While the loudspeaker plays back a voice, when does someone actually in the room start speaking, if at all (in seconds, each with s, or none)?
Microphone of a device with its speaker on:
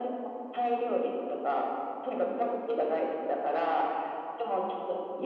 none